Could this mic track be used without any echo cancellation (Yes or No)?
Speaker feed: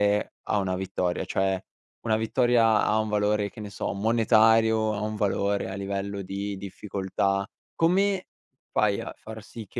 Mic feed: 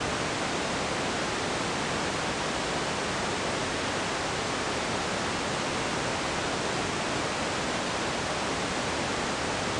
Yes